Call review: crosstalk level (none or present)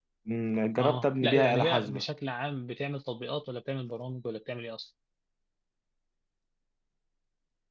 present